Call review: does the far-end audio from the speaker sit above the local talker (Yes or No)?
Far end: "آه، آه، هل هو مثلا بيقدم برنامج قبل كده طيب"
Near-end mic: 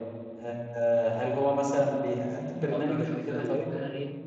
Yes